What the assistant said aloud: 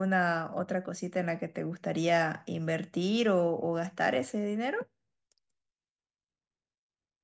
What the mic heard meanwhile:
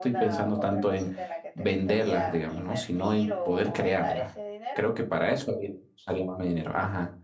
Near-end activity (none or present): present